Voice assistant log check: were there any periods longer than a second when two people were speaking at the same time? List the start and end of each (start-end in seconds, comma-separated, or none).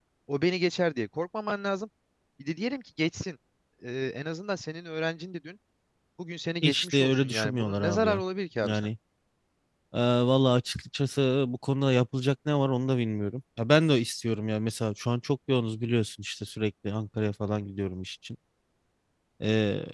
6.6-8.2